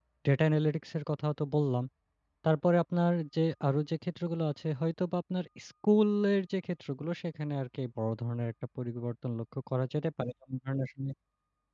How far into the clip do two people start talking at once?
none

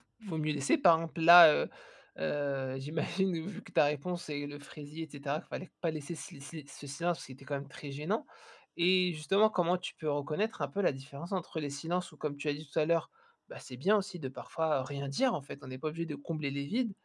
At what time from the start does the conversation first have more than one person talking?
none

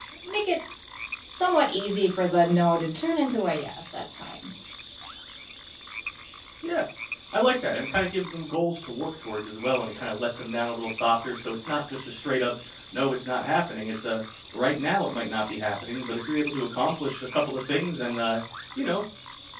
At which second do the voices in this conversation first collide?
none

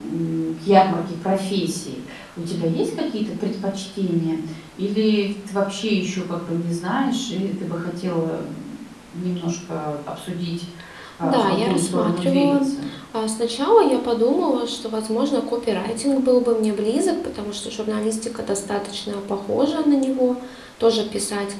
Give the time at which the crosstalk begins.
11.2 s

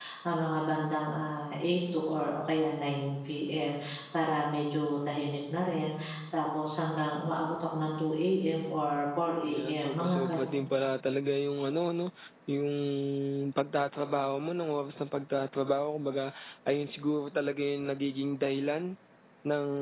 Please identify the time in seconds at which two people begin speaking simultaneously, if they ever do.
9.5 s

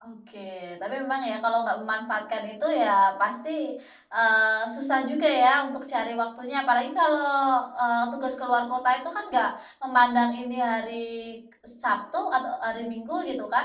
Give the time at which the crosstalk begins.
none

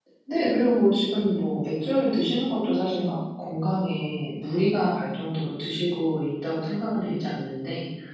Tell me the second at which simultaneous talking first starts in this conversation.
none

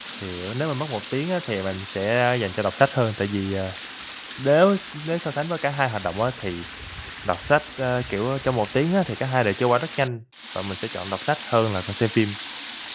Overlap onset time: none

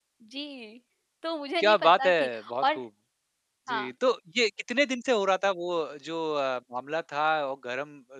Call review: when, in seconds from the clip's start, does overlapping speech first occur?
1.6 s

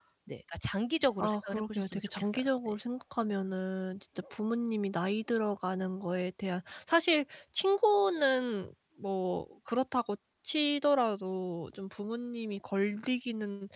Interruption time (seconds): 1.2 s

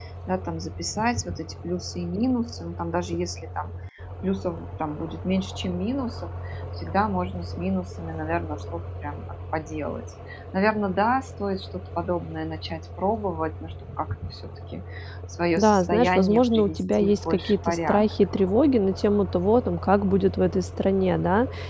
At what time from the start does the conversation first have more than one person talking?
15.6 s

